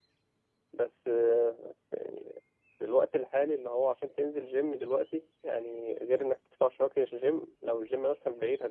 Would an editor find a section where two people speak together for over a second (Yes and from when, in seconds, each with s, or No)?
No